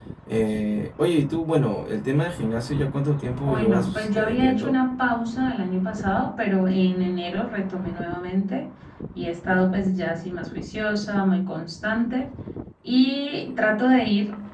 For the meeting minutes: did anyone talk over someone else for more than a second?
Yes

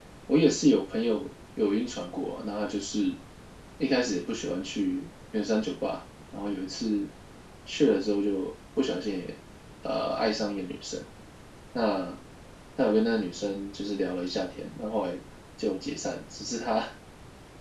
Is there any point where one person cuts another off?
No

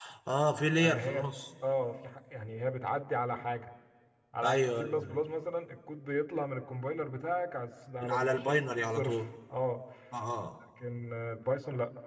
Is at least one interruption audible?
Yes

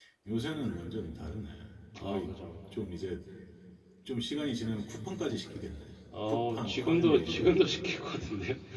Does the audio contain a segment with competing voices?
Yes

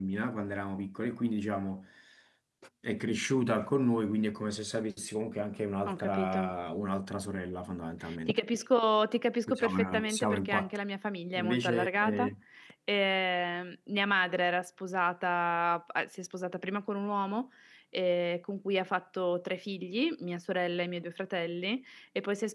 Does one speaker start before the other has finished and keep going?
Yes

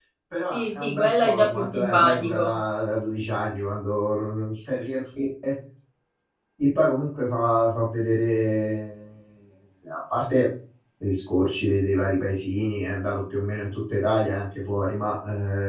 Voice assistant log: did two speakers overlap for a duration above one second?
Yes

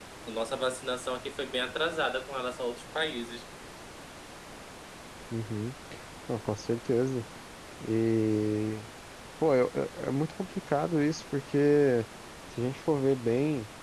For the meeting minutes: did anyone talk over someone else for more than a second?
No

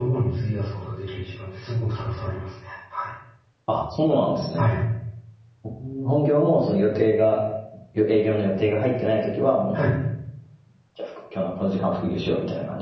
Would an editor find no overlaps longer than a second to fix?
Yes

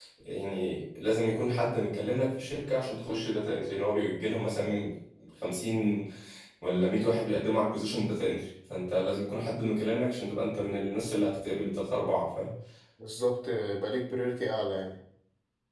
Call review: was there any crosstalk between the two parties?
No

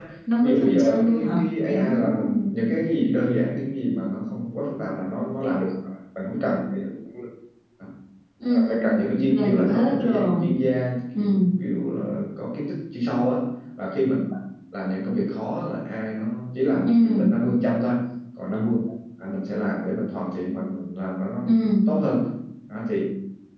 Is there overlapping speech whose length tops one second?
Yes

